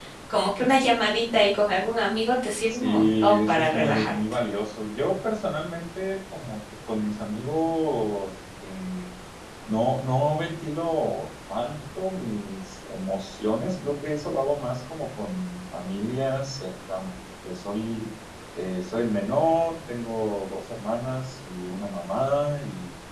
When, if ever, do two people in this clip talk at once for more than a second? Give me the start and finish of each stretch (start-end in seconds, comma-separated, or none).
2.7-4.2